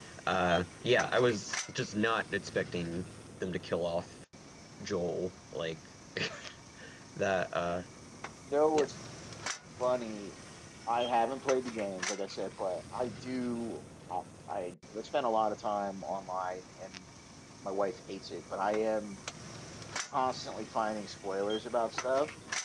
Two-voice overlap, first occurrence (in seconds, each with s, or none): none